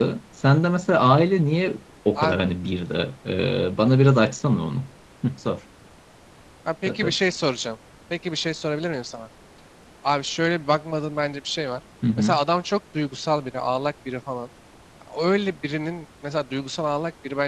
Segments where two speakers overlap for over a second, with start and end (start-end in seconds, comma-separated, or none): none